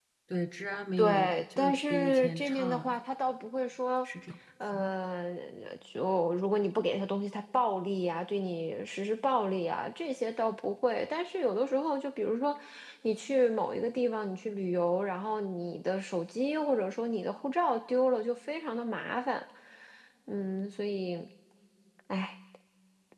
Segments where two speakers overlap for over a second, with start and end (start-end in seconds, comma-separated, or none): 1.0-3.0